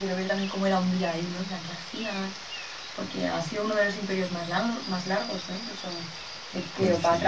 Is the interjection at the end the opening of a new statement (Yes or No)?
No